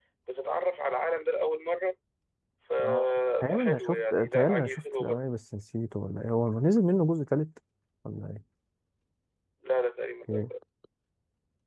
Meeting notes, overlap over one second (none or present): present